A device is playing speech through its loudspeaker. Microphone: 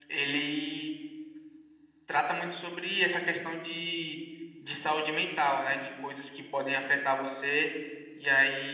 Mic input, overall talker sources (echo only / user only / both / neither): echo only